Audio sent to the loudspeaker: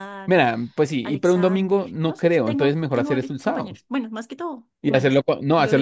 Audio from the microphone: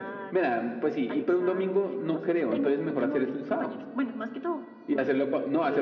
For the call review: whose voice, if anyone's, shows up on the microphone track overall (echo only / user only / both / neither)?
echo only